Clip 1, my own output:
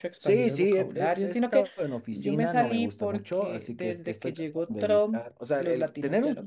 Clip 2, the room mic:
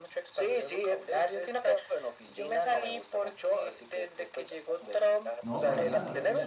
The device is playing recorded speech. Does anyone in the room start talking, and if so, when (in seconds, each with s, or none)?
5.4 s